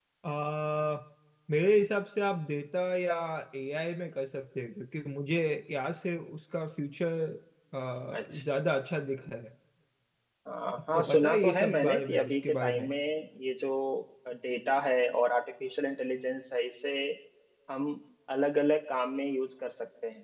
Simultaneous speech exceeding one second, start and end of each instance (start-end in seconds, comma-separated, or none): 10.9-12.8